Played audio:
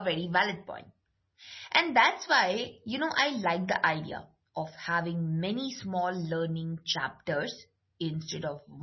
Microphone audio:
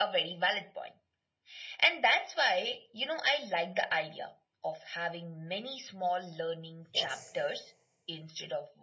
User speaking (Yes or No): Yes